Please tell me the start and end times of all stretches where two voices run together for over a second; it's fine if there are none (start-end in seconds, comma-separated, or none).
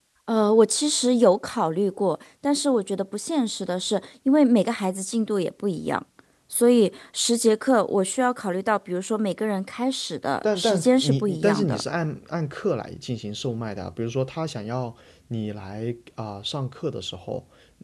10.6-11.8